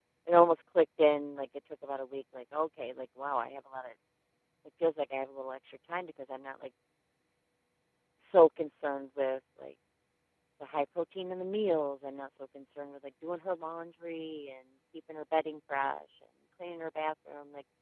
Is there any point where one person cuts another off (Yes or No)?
No